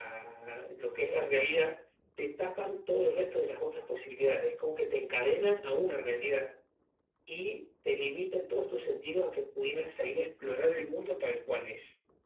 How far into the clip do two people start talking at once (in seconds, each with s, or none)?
none